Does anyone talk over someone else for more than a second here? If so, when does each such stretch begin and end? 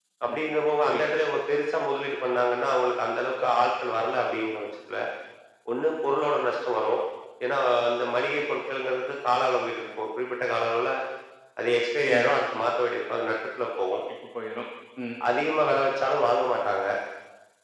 none

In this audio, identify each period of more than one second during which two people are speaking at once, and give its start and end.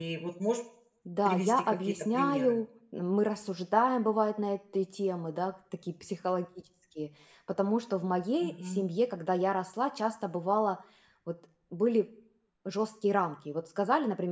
1.2-2.6

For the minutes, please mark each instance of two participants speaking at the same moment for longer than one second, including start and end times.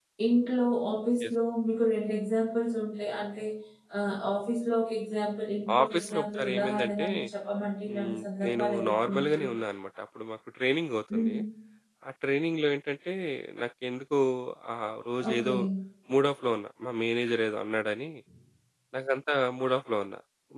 5.8-7.0, 7.9-9.4

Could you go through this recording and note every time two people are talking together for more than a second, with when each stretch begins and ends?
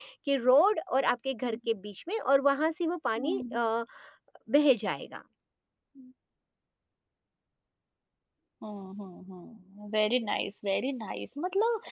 none

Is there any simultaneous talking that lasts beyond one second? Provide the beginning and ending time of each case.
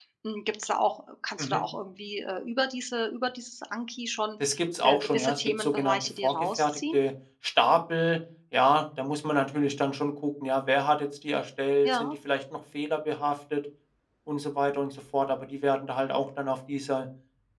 4.8-7.0

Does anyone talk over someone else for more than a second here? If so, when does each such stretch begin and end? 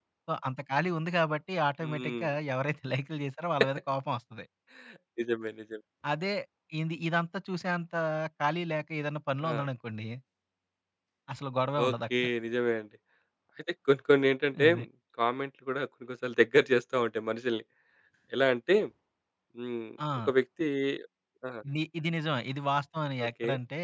none

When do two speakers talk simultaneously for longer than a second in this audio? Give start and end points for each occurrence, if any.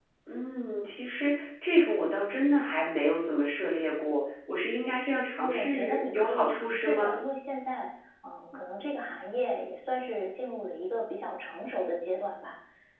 5.4-7.2

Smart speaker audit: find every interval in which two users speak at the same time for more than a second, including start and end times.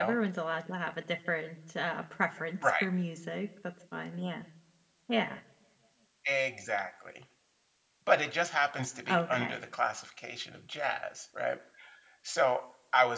none

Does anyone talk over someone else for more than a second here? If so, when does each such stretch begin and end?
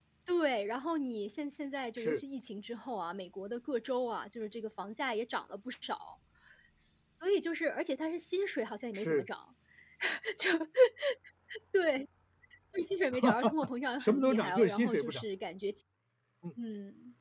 14.0-15.2

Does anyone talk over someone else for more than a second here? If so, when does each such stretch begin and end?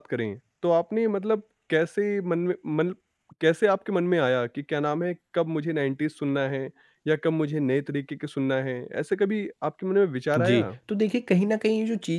none

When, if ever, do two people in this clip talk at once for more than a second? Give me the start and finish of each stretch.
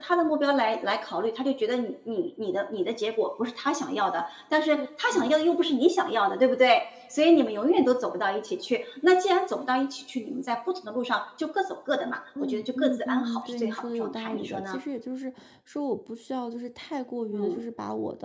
12.4-14.8

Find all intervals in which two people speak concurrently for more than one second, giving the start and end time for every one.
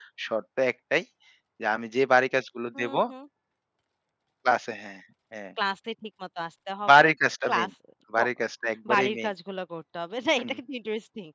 none

